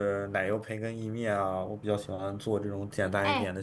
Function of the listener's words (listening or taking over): taking over